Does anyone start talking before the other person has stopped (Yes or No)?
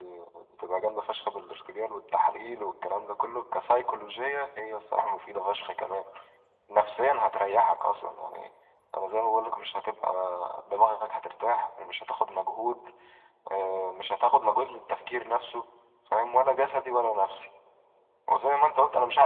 No